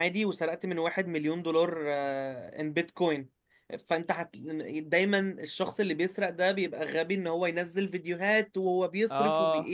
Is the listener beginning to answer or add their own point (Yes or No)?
No